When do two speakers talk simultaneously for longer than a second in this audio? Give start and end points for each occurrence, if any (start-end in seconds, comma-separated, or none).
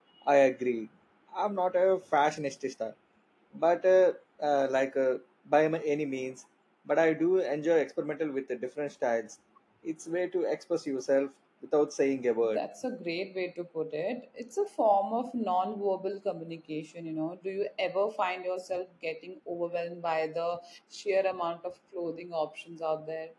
none